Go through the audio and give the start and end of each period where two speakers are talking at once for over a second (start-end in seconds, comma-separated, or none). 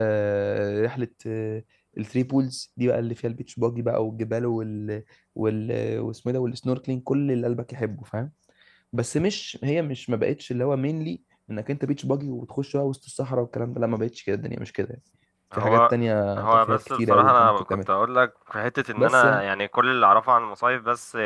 16.4-17.8